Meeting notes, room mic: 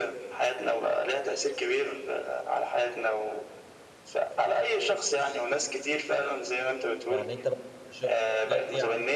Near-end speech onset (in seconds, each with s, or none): 7.1 s